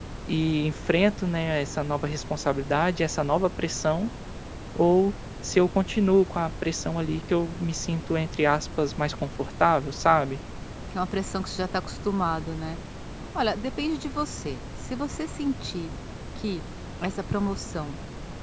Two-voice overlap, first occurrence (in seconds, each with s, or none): none